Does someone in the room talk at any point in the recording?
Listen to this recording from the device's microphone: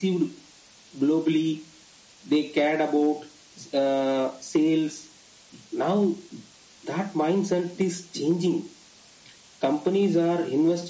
No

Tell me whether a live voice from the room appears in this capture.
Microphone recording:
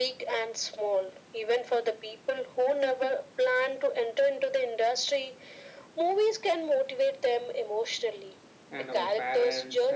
Yes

